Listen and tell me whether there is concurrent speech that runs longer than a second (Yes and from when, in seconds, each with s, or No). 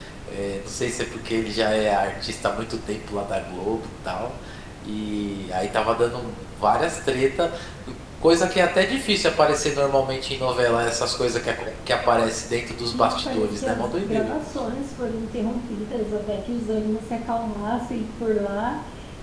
Yes, from 12.9 s